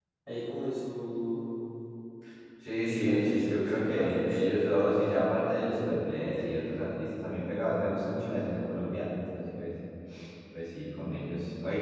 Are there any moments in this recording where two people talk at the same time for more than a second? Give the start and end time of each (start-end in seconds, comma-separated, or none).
2.9-4.6, 5.6-6.9